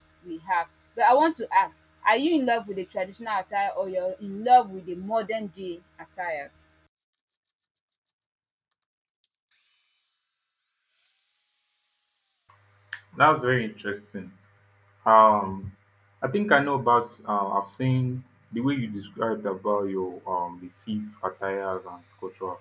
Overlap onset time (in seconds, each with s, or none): none